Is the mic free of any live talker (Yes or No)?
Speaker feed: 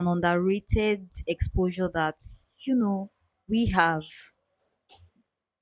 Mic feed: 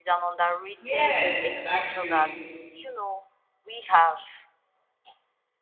No